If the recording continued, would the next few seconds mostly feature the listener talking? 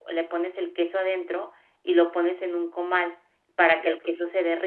No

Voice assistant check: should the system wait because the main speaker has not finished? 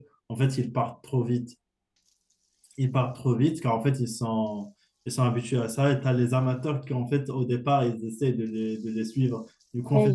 No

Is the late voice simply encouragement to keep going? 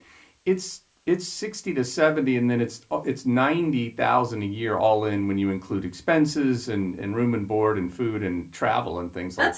No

